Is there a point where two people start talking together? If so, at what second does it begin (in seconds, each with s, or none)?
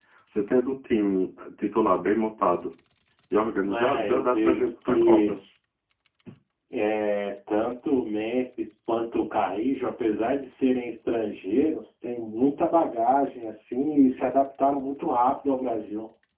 3.7 s